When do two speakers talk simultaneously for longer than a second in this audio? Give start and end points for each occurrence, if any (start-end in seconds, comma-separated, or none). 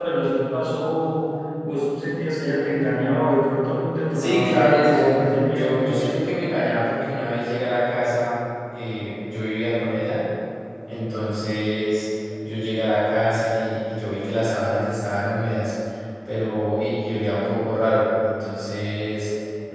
4.1-6.2